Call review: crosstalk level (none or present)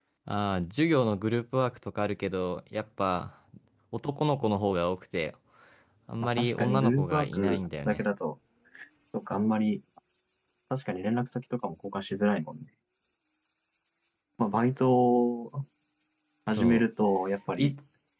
present